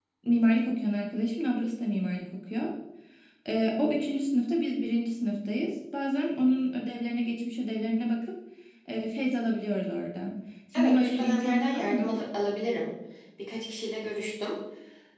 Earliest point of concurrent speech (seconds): 10.7 s

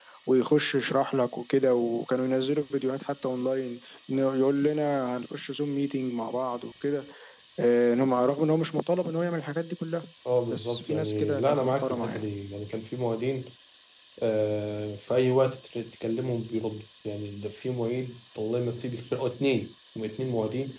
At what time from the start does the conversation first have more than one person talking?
10.5 s

